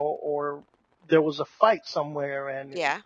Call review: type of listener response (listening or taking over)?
listening